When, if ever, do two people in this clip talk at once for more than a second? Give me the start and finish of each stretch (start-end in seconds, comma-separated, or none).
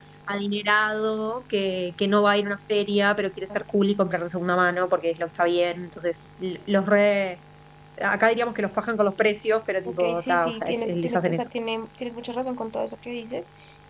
9.8-11.5